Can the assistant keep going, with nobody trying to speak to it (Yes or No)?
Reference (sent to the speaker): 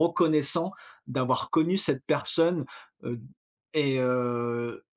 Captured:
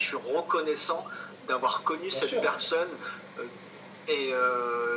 No